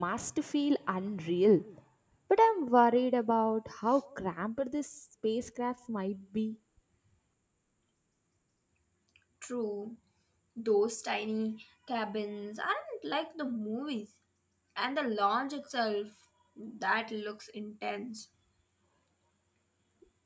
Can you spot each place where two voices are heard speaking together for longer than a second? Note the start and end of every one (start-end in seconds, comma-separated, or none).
none